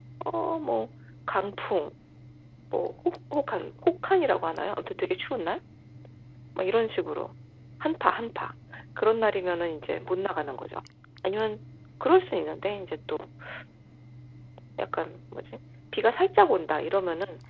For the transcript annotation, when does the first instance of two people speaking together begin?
none

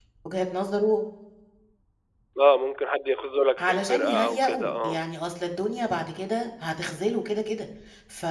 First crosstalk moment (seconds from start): 3.6 s

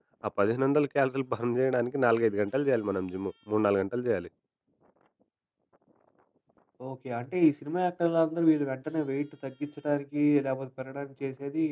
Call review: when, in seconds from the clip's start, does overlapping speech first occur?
none

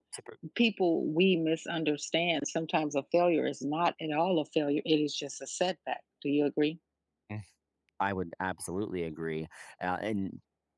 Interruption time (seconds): none

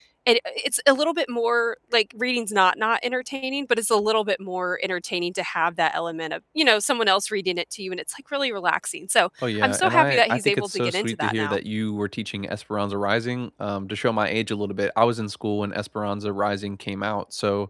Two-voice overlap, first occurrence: 9.4 s

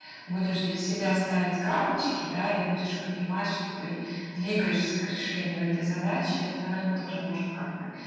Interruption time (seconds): none

